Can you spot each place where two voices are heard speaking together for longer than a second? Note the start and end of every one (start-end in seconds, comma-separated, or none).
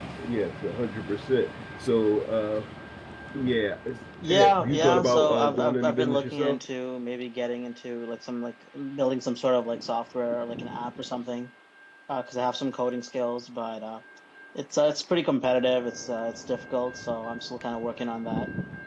4.3-6.6